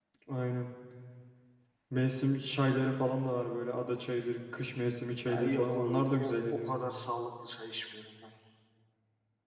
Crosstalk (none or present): present